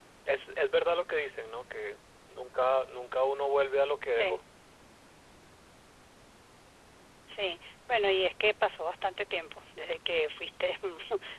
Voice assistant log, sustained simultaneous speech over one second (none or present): none